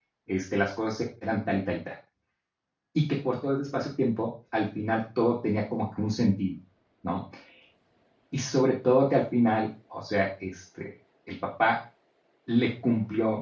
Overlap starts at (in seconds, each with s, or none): none